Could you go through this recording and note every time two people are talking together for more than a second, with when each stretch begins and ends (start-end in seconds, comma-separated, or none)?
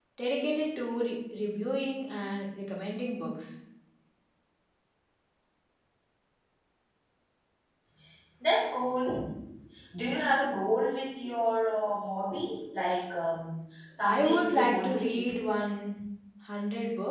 14.0-15.3